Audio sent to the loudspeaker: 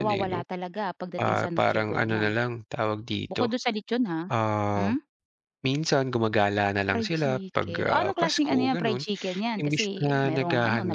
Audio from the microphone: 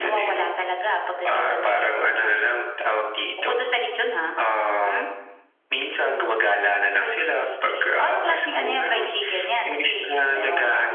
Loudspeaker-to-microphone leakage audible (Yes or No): Yes